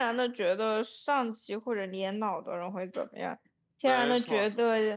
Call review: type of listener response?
listening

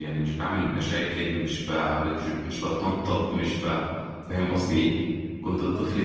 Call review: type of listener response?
listening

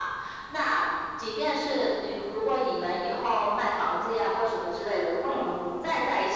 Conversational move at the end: listening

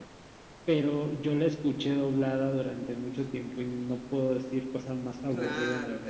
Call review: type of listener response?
taking over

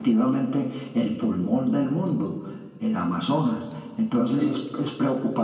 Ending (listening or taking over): listening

